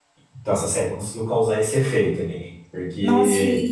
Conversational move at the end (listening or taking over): taking over